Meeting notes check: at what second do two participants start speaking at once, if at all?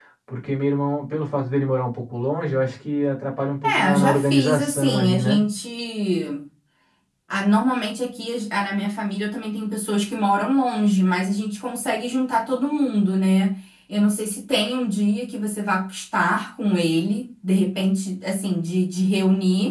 3.6 s

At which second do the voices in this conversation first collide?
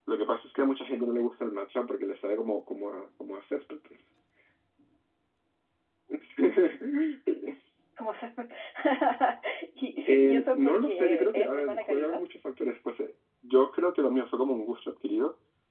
10.0 s

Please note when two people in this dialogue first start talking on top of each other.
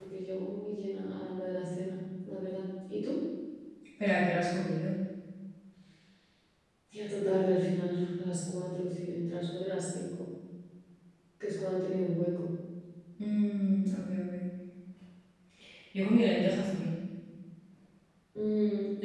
none

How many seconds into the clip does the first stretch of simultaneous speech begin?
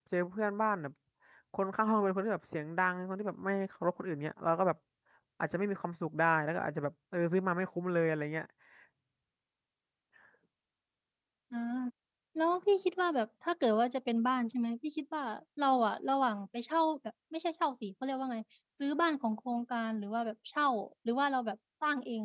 none

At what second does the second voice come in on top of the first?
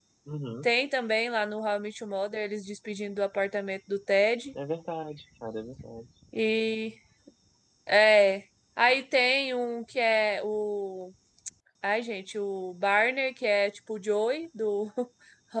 none

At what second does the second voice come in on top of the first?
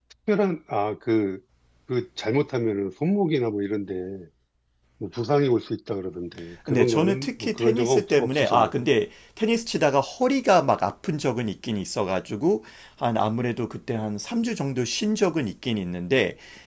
6.6 s

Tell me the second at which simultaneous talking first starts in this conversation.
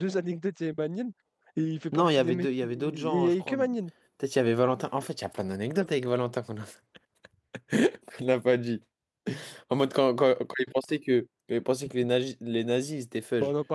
1.9 s

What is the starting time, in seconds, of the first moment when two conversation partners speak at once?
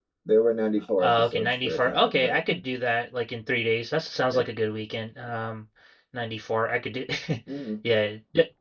1.0 s

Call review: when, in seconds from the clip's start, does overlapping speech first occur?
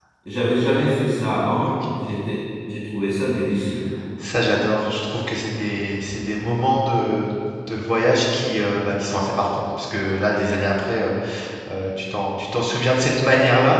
none

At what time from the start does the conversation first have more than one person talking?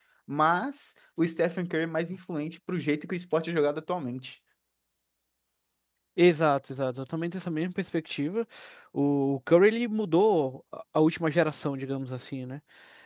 none

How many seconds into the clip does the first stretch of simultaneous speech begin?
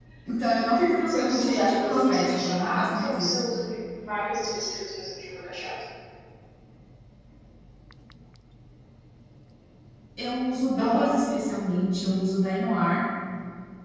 1.1 s

